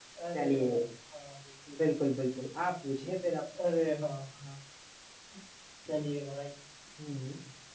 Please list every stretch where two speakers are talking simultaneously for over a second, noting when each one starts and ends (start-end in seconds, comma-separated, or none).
none